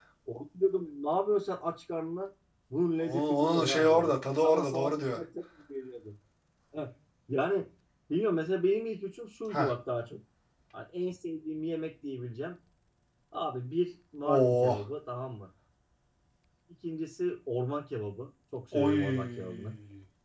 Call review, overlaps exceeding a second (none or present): present